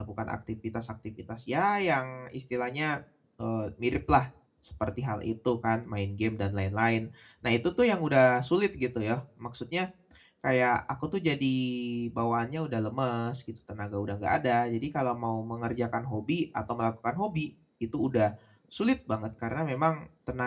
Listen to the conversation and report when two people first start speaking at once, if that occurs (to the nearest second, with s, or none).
none